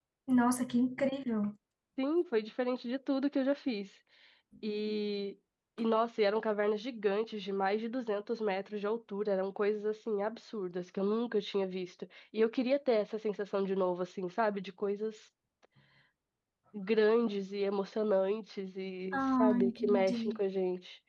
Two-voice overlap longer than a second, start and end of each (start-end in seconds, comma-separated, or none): 19.2-20.4